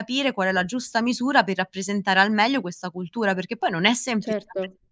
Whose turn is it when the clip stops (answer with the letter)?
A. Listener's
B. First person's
B